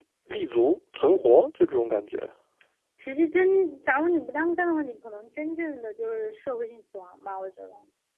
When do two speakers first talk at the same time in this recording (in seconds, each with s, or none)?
none